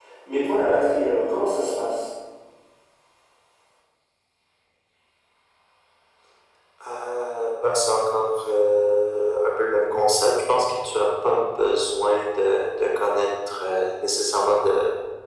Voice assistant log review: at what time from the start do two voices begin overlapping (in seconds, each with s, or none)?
none